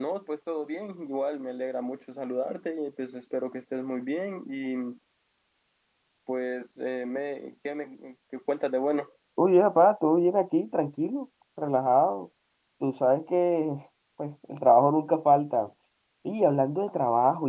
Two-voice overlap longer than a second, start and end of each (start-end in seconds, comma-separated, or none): none